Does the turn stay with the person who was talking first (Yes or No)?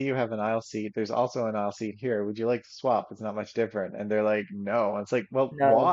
Yes